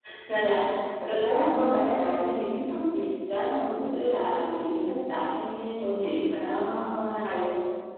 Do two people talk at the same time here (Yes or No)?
No